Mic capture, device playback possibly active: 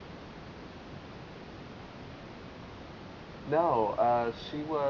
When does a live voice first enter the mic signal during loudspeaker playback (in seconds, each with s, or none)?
3.5 s